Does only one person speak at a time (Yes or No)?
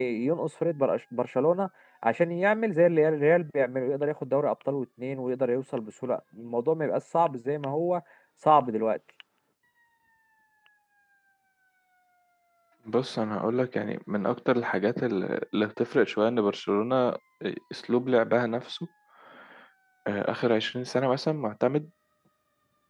Yes